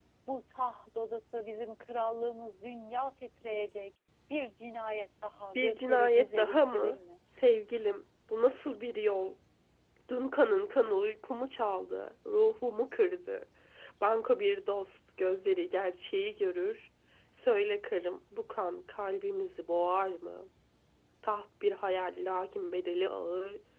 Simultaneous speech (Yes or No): Yes